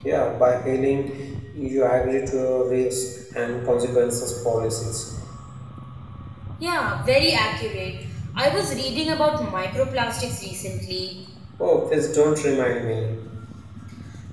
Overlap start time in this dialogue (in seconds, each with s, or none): none